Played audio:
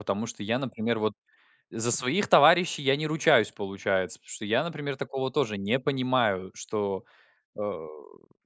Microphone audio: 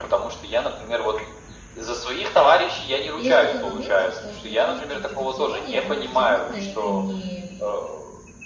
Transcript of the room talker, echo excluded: Есть такой моментик, что, мне кажется, вот эта теория, она абсолютно не

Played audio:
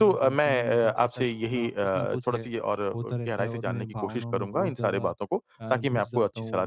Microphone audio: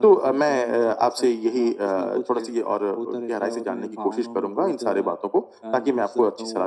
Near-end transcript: none

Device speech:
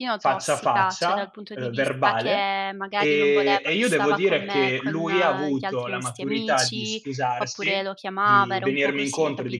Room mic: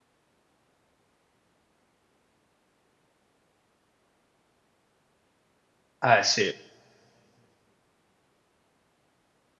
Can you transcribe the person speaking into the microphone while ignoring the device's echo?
Eh, sì.

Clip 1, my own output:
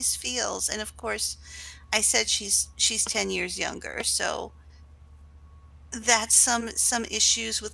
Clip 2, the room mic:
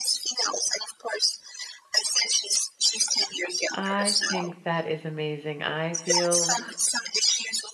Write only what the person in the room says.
I think that is amazing. I feel

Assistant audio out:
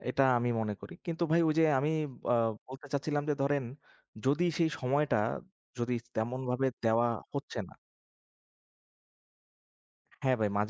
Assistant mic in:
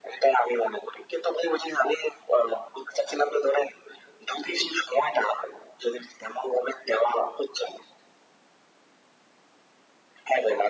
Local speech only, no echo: none

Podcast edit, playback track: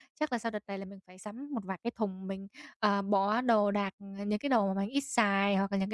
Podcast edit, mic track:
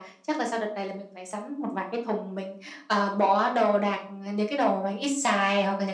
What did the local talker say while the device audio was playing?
none

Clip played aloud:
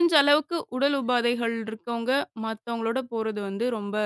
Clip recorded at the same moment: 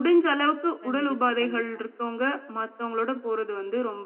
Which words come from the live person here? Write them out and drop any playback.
கண்டிப்பா, கண்டிப்பா.

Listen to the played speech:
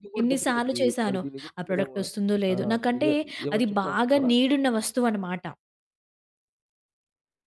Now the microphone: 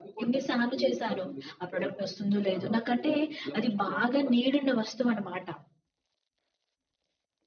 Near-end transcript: none

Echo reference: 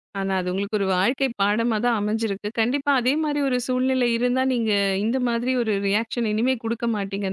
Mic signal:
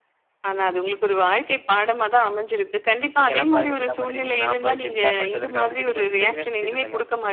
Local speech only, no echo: நீங்கலாம் பாருங்க இப்படிலாம் பண்ணியிருக்கீங்க. நான் பாரு கெத்தா பண்ணிட்டு வந்திருக்கேன் அப்படின்னு சொல்லிட்டு கொஞ்சம் பெருமையா சுத்திட்டு இருந்தேங்க.

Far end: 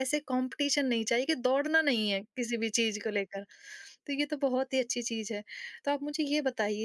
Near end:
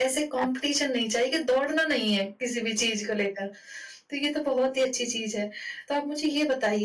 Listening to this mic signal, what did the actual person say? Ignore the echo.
एब्सो

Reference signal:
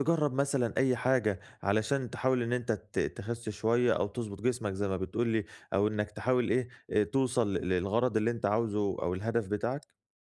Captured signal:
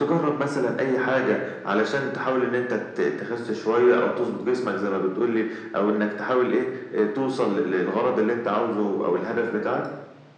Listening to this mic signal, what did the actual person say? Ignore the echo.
none

